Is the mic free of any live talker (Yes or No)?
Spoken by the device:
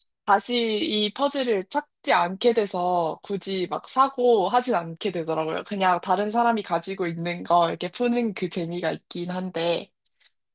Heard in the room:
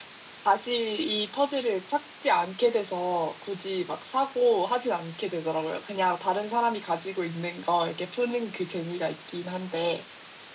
Yes